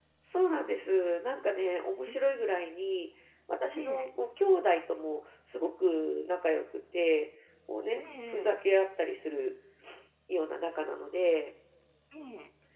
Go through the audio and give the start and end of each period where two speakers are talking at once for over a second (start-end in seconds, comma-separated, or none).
none